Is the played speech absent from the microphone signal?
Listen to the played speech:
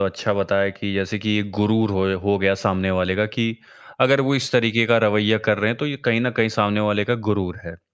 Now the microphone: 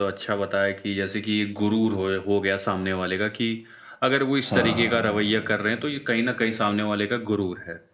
No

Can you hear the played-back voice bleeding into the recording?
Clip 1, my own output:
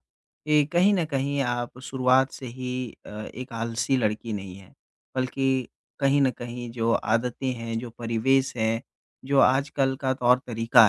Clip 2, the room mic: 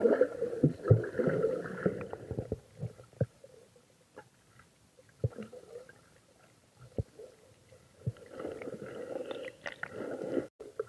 No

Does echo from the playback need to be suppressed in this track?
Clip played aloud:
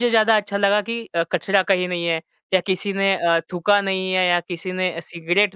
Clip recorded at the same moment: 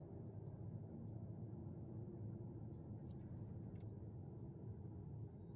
No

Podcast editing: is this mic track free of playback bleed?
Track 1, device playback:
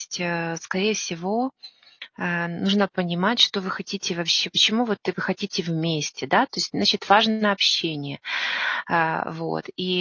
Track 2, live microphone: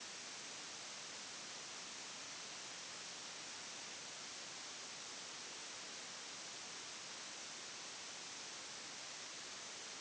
Yes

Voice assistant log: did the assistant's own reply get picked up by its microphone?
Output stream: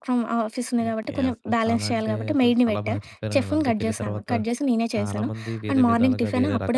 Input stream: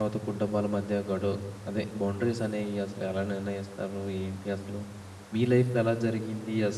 No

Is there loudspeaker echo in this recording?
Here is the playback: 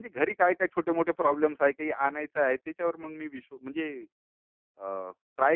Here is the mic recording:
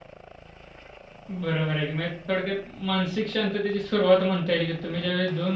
No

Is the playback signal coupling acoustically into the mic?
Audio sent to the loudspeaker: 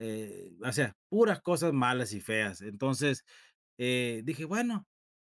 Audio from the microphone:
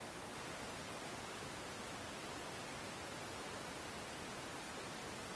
No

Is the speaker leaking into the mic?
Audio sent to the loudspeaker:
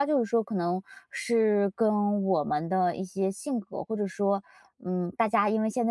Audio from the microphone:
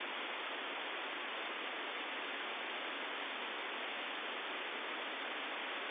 No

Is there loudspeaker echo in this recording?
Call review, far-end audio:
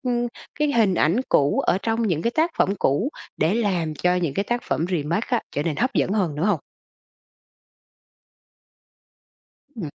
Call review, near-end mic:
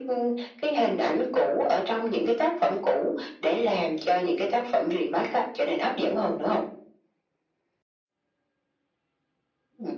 Yes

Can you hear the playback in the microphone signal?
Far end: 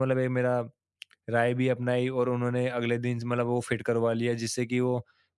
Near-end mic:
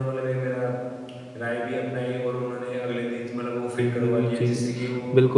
Yes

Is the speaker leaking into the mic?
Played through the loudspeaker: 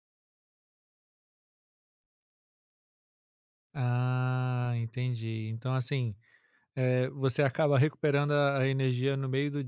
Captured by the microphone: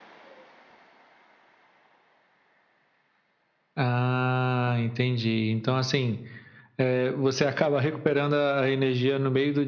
Yes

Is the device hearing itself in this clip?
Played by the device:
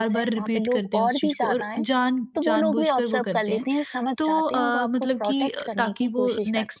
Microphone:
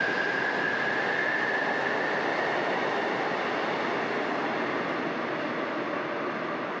No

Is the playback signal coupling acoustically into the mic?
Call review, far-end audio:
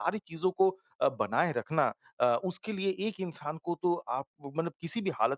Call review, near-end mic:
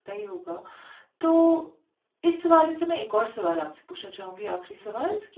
No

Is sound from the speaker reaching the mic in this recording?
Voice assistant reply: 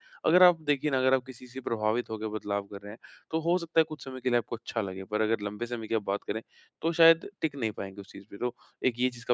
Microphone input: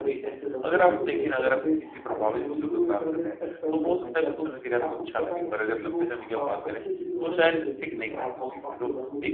Yes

